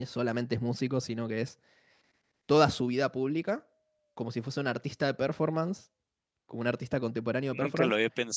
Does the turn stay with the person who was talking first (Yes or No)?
No